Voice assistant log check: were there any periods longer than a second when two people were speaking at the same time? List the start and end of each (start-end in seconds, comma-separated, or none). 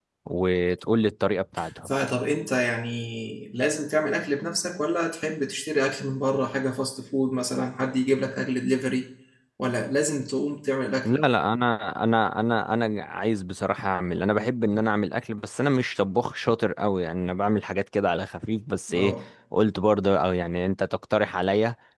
none